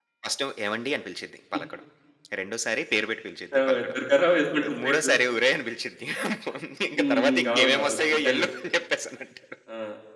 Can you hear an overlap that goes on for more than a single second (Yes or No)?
Yes